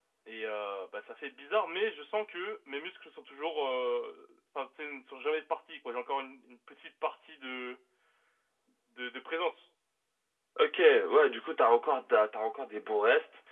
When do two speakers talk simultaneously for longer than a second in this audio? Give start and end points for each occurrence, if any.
none

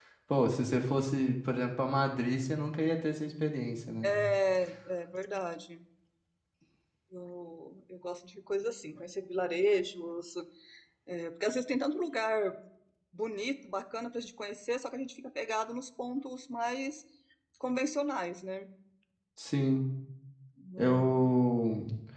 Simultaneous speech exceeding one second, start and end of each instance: none

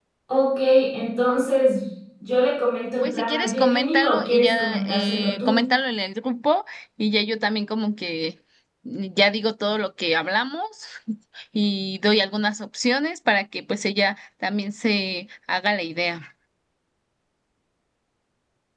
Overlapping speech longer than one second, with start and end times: 3.0-5.6

